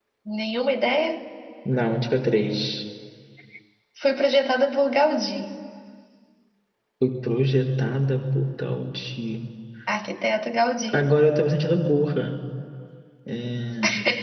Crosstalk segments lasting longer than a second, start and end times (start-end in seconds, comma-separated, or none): none